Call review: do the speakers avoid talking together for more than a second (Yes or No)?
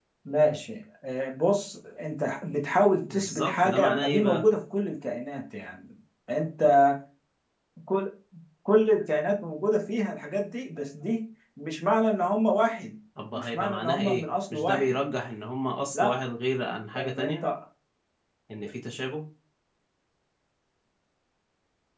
No